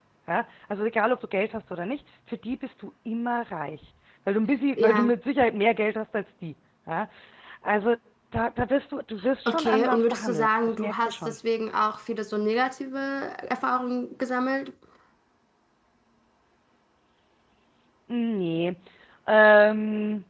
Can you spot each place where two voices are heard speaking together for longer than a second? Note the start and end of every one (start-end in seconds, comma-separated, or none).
9.4-11.3